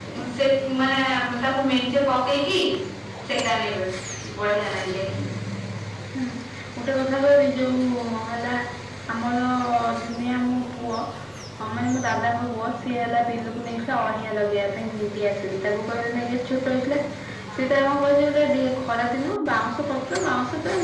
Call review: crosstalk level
none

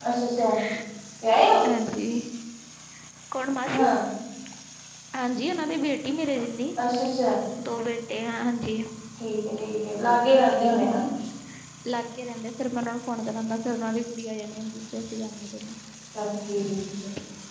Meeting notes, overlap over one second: none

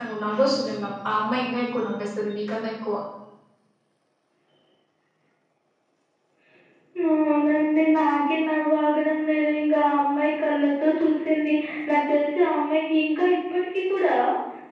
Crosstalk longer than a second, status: none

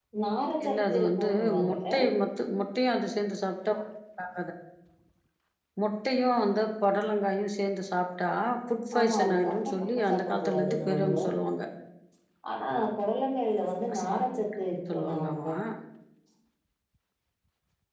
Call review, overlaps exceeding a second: present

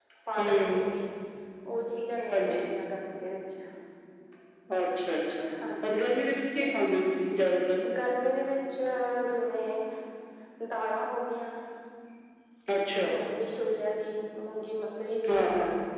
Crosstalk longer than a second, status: none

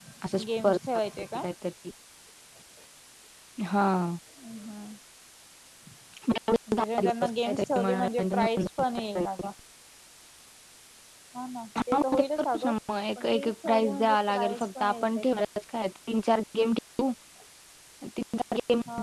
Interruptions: present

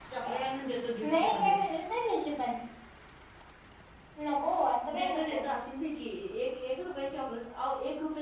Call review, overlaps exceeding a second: none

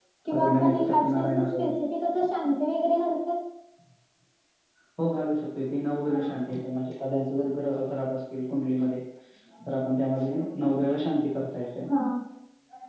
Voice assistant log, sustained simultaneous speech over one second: present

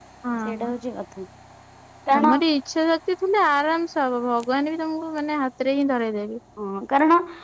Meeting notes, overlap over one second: none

